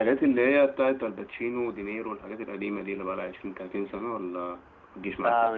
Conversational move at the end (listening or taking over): taking over